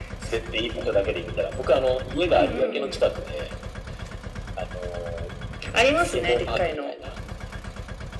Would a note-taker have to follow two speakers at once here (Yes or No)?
Yes